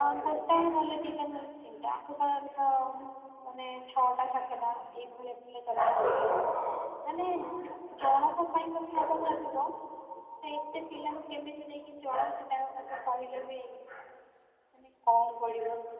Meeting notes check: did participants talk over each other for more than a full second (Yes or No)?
No